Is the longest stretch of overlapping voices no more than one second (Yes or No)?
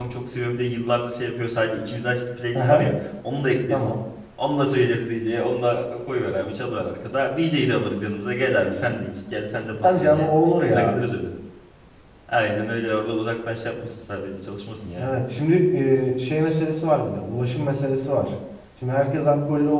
Yes